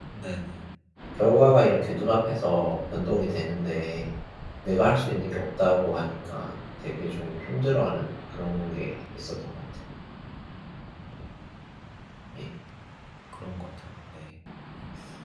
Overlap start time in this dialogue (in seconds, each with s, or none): none